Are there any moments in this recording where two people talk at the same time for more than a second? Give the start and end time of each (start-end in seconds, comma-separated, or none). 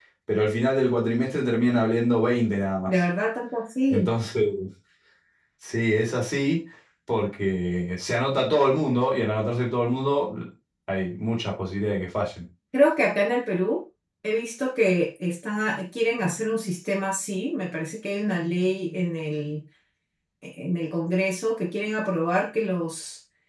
none